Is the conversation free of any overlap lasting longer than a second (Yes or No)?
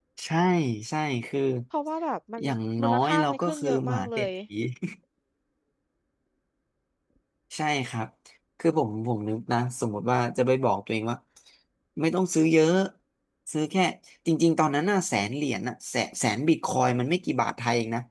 No